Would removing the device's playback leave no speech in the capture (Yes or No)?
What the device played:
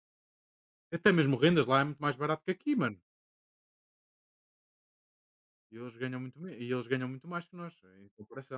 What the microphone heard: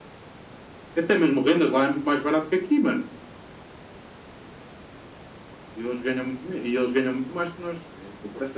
Yes